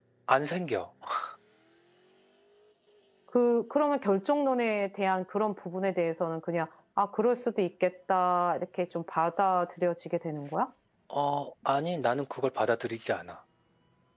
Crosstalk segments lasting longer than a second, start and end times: none

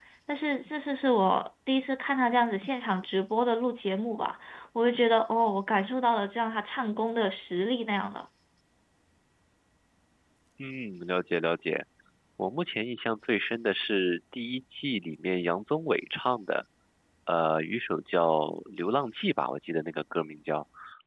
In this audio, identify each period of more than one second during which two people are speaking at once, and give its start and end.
none

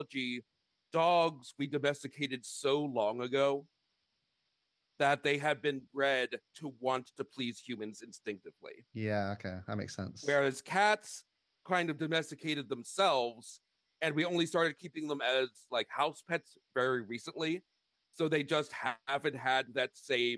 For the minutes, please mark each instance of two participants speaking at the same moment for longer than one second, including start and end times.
none

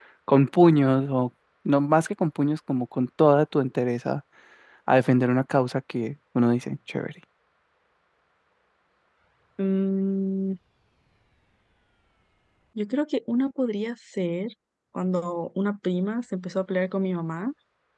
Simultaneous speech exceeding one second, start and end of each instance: none

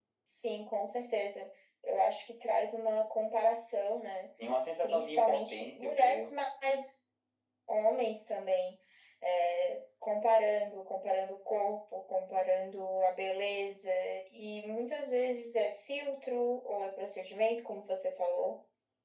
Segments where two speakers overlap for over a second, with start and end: 4.8-6.3

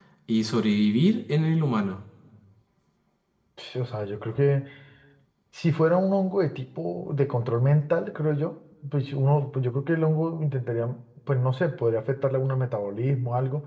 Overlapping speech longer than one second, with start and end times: none

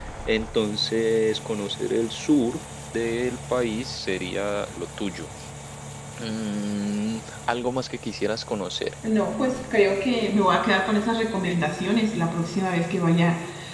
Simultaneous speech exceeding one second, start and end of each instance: none

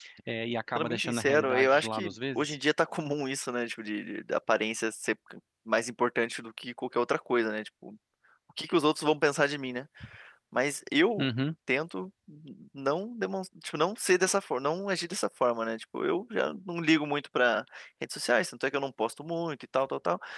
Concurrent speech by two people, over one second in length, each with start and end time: 0.8-2.6

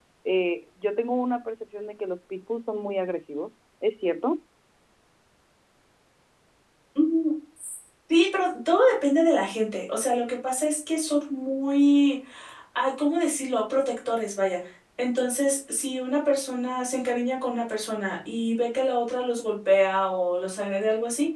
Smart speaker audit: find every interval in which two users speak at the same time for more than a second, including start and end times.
none

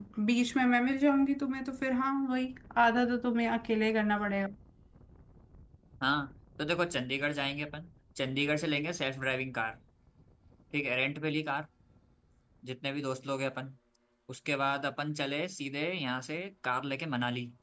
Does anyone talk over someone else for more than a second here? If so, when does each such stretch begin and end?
none

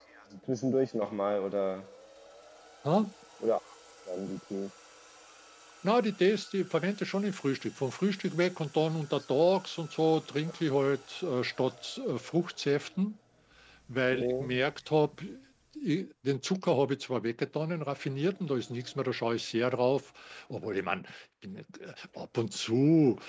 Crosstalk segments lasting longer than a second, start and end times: none

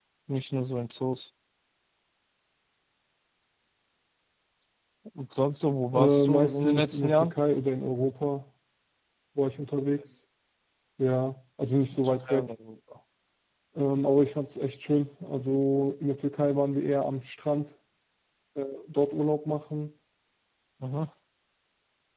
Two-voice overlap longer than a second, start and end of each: 5.9-7.3

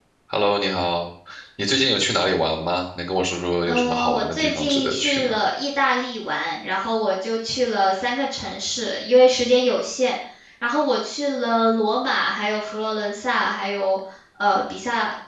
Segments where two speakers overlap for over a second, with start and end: 3.6-5.4

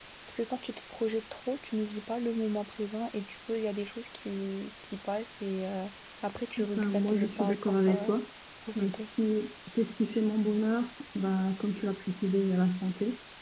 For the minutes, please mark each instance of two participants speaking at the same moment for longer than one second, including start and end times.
6.8-8.2

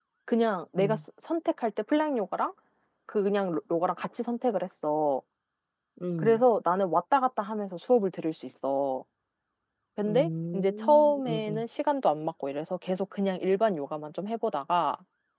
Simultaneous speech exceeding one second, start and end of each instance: 10.1-11.6

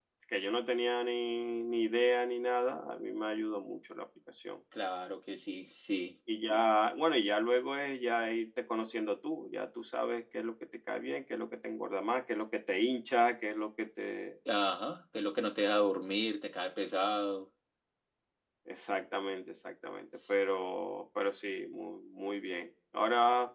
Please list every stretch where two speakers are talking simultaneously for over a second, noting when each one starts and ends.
none

